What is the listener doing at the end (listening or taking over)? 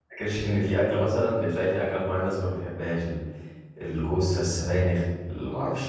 listening